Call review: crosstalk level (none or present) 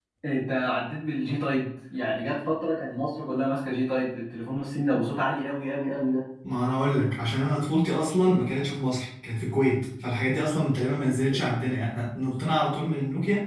none